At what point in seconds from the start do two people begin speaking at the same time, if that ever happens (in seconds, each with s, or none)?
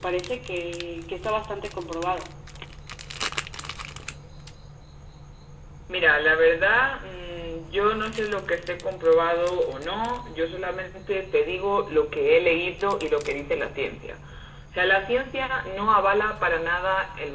none